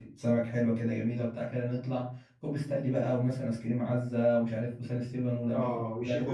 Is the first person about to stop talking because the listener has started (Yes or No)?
Yes